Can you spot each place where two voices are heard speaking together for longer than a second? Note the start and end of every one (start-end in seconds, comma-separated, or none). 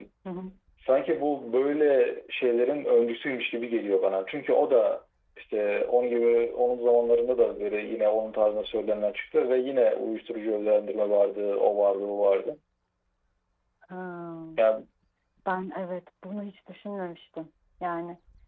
none